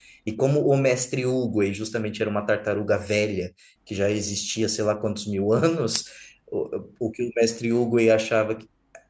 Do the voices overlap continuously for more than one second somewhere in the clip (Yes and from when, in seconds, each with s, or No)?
No